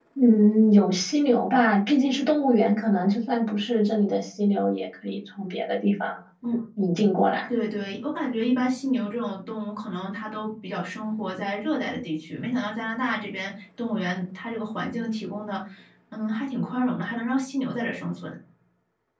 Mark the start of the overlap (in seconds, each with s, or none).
none